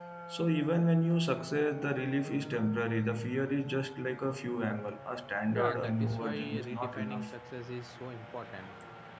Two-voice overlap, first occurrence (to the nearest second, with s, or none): 6 s